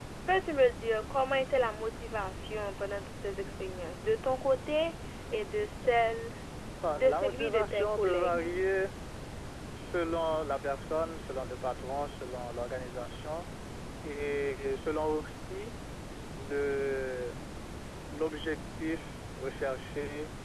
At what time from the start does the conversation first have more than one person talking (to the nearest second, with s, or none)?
7 s